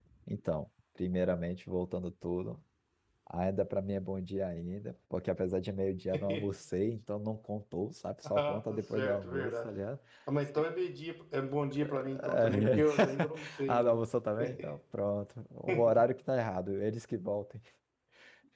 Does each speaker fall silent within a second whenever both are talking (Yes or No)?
No